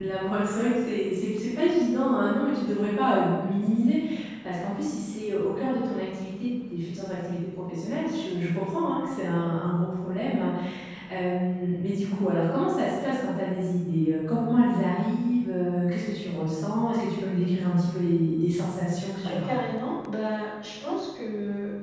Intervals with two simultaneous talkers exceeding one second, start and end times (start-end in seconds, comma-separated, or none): none